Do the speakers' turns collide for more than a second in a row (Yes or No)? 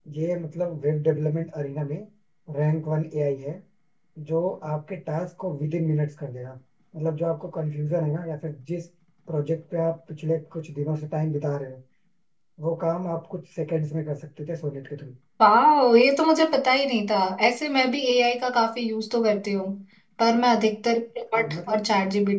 No